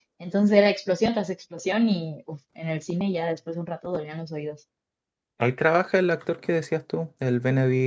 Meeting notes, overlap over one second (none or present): none